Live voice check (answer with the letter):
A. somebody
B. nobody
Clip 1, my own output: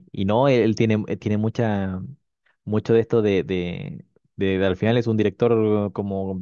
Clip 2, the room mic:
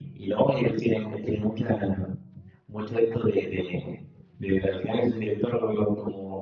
B